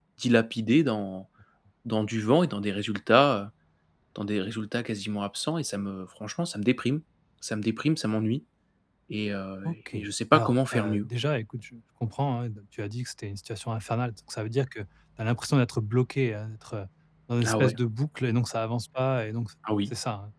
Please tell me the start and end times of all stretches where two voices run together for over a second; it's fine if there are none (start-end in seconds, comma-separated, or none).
9.7-11.1